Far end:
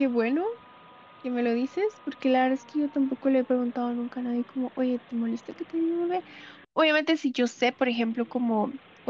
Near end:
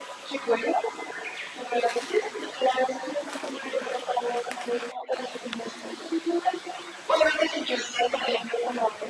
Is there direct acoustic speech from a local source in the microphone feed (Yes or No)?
No